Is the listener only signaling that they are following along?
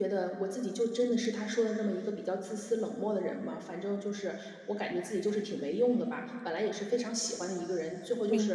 Yes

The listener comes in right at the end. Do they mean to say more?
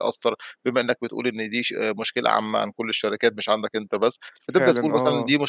No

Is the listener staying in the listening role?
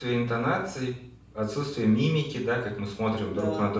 Yes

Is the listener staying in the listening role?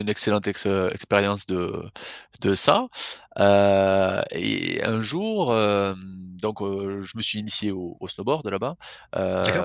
No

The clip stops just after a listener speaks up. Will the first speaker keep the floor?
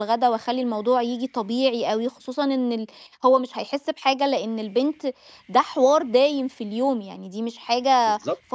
No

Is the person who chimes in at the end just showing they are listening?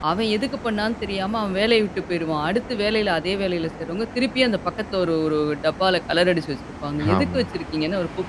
Yes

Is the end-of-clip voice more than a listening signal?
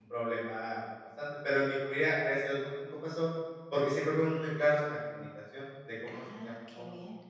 Yes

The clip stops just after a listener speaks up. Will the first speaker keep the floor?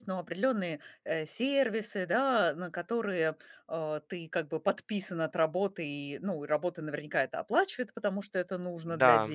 Yes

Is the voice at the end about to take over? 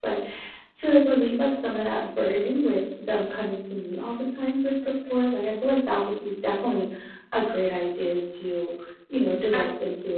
No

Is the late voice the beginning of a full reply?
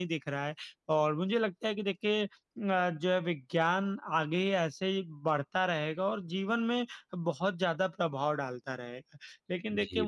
No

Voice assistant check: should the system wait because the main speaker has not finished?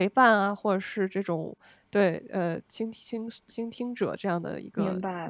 No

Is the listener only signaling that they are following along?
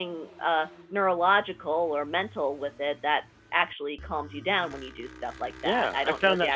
No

